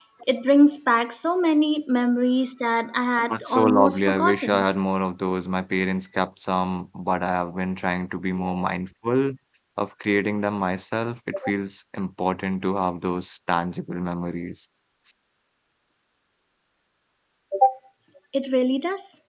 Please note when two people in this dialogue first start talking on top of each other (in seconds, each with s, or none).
3.2 s